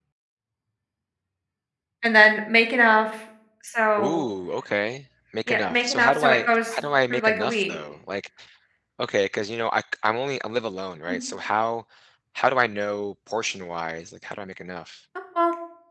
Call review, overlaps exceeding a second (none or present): present